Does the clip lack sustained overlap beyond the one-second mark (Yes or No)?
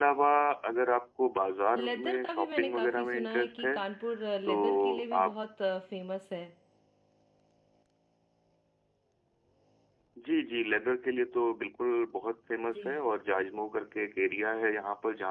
No